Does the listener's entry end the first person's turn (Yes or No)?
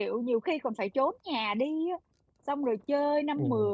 No